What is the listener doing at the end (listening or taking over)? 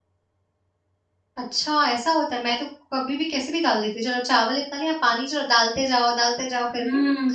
taking over